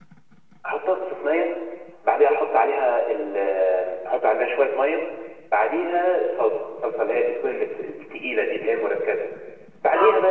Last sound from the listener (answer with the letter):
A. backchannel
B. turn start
A